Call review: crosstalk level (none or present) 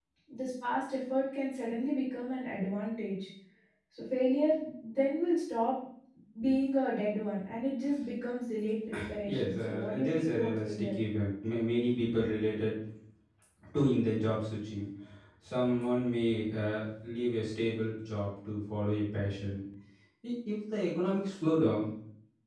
present